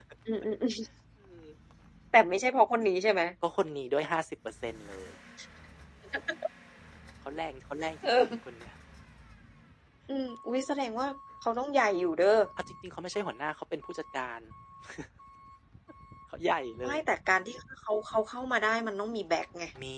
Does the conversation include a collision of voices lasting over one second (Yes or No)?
No